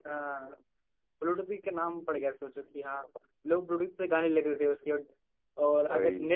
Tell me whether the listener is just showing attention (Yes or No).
Yes